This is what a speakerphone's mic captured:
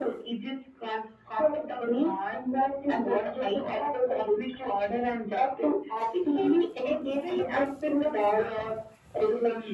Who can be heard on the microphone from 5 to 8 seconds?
echo only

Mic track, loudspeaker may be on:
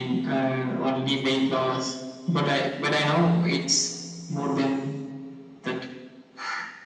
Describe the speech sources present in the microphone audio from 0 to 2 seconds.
echo only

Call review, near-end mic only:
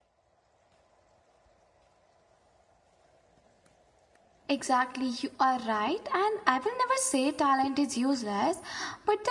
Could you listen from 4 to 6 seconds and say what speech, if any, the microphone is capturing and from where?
user only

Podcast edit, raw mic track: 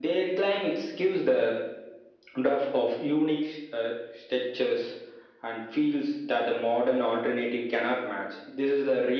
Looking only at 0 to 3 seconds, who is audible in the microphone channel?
echo only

